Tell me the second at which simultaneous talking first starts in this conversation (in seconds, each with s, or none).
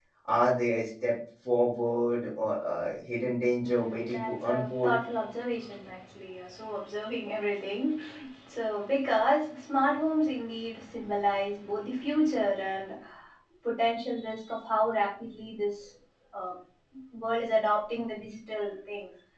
3.6 s